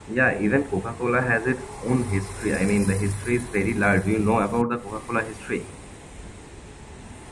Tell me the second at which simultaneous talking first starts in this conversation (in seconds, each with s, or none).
none